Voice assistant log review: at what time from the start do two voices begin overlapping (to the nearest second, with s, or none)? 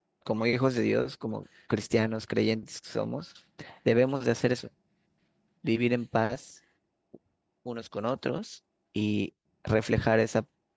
none